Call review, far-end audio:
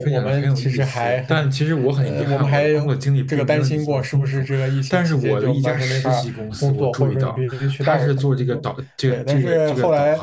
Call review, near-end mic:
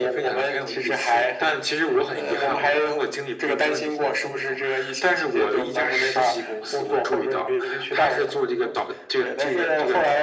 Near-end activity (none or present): none